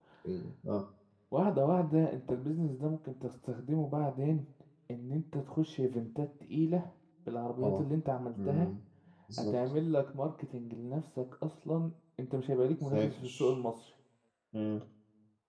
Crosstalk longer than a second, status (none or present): none